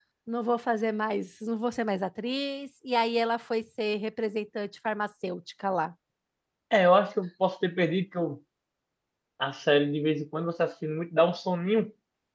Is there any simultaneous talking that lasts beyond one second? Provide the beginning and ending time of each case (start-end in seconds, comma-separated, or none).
none